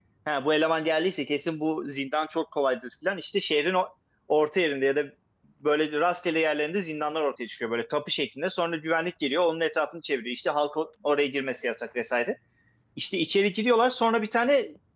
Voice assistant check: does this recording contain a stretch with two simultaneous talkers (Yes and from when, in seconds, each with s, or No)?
No